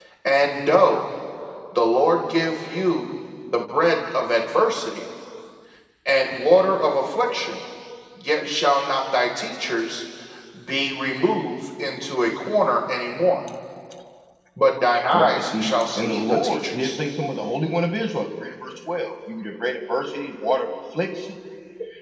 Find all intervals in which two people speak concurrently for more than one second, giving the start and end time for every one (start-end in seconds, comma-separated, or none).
15.1-17.0